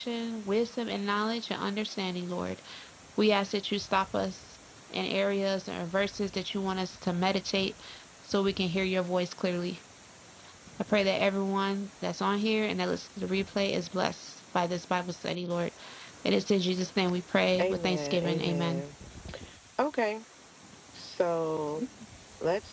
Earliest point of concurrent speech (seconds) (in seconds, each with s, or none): 17.6 s